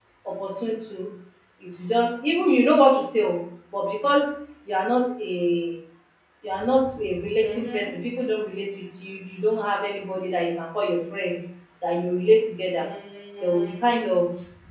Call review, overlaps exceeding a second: none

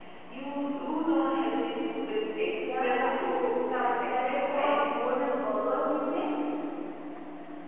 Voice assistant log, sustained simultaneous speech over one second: present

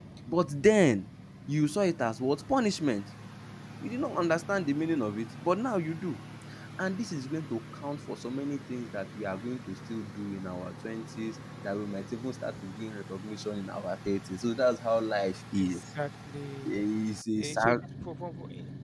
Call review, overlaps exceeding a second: none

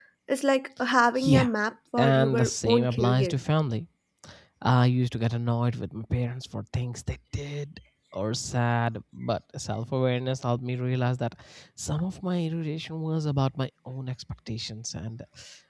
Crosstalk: present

